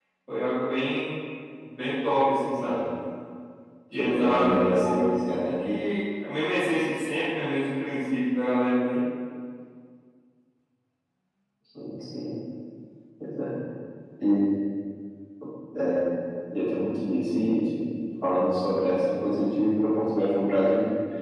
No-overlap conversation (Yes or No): No